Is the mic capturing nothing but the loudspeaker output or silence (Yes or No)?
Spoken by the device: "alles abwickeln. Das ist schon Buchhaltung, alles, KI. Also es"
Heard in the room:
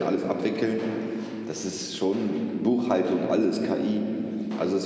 Yes